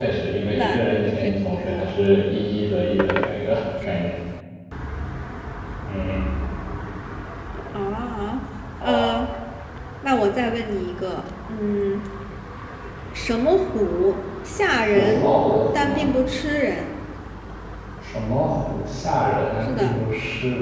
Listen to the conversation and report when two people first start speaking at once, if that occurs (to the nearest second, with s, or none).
1 s